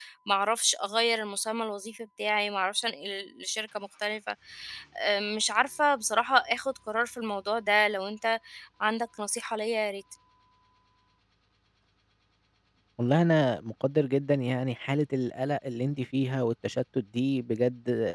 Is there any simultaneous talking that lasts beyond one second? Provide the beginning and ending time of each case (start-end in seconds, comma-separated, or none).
none